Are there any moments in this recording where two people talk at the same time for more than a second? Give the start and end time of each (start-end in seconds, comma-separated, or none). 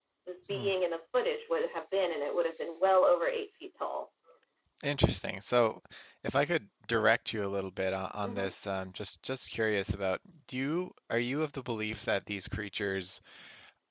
none